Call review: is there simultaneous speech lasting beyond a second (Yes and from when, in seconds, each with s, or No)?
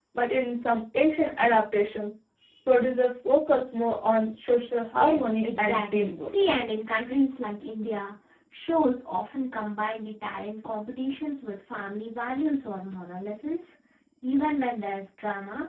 Yes, from 4.9 s